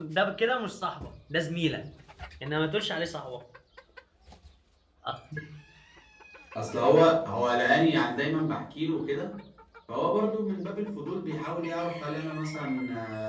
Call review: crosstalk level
none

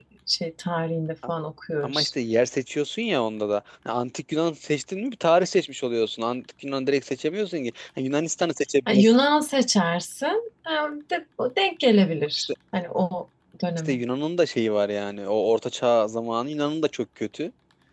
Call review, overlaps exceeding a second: none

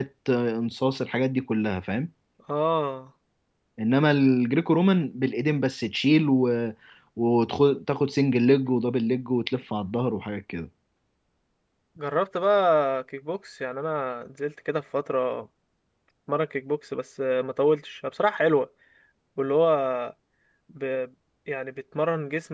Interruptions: none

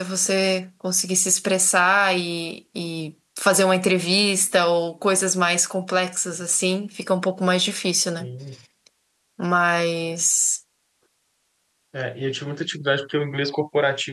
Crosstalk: none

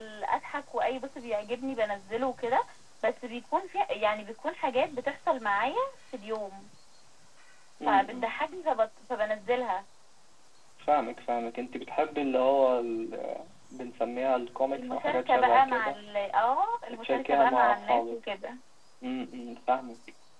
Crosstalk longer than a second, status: present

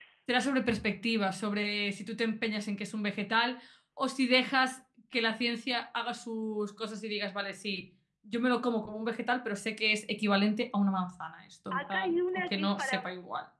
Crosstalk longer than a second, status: present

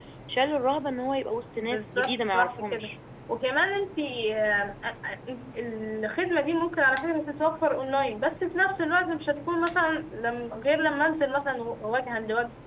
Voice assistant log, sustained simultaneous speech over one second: present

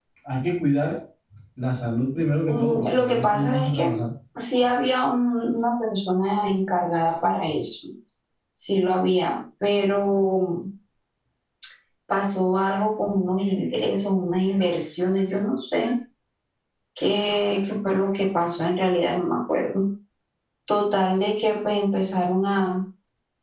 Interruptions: present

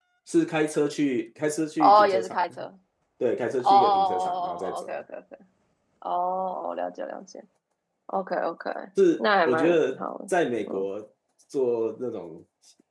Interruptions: present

